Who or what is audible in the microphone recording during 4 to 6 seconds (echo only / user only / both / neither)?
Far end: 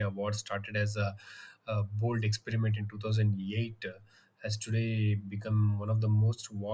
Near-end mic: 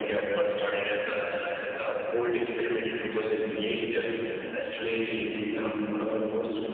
echo only